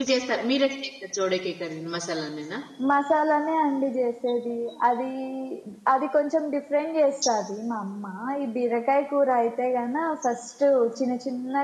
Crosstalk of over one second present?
No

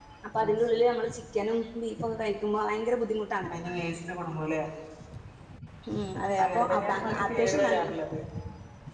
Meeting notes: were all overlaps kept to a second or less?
No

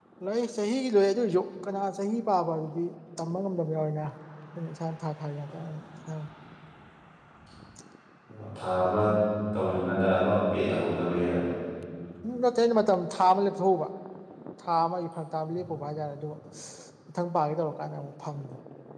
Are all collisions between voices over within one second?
Yes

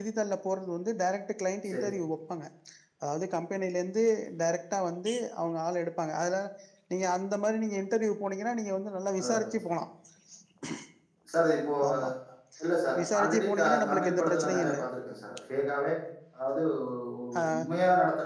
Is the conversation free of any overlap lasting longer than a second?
No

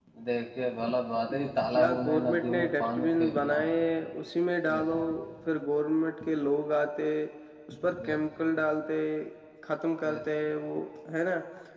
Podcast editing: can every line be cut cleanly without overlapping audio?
No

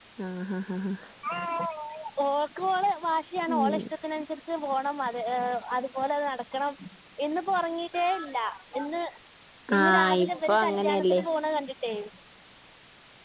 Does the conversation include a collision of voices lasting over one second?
Yes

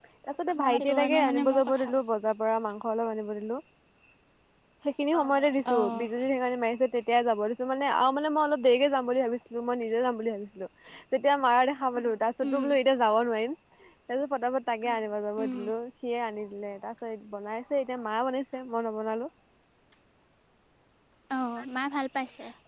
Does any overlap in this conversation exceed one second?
Yes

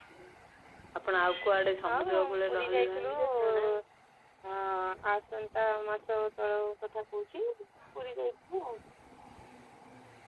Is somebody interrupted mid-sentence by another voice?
Yes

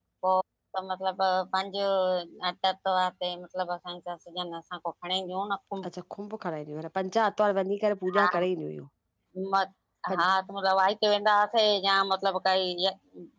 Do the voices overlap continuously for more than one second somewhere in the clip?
No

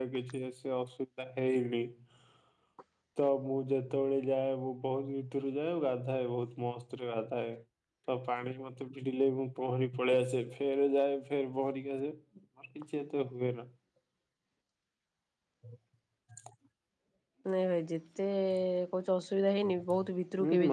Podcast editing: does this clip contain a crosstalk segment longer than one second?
No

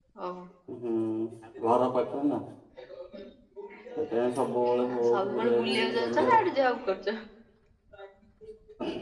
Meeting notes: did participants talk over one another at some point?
Yes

